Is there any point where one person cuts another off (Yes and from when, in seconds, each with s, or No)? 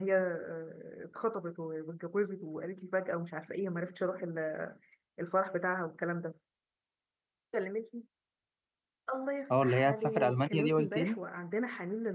Yes, from 9.5 s